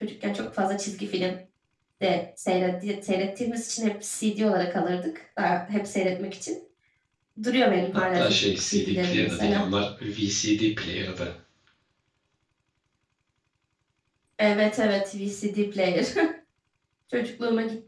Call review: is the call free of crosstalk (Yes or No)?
No